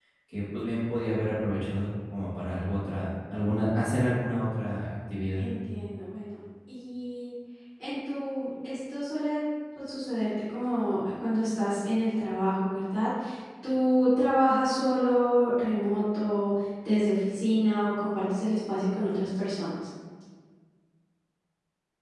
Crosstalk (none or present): none